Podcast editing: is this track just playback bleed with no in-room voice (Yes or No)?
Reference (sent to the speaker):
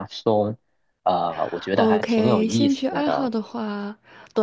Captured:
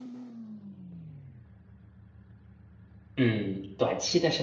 No